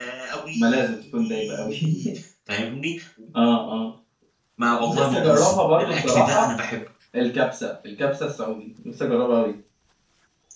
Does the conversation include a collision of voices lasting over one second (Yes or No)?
Yes